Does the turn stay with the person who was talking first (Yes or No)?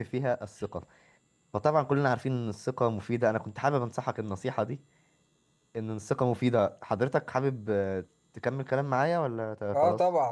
No